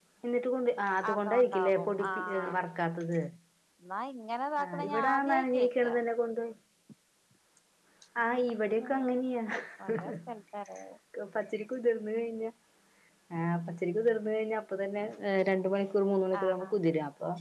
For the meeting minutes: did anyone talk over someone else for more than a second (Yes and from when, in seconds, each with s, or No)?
Yes, from 1.1 s